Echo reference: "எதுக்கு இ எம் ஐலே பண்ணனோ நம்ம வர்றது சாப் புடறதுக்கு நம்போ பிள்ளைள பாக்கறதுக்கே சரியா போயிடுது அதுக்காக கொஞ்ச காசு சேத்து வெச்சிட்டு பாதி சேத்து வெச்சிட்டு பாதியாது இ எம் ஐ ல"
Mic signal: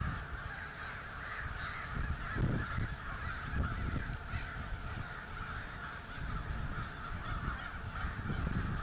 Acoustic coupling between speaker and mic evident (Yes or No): No